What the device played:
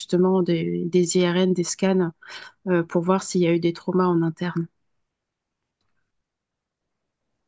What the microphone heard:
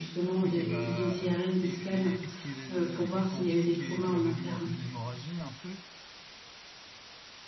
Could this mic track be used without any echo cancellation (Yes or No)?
No